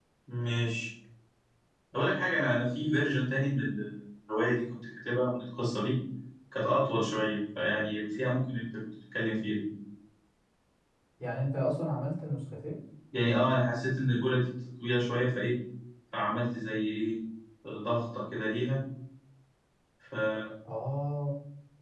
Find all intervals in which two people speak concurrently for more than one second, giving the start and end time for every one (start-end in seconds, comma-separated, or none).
none